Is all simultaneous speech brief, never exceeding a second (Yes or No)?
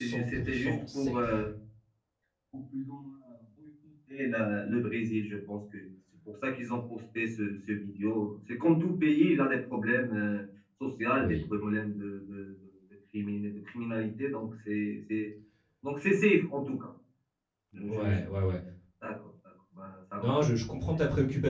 No